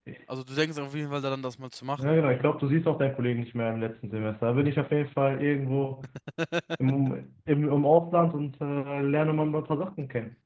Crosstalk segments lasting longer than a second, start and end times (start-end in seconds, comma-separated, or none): none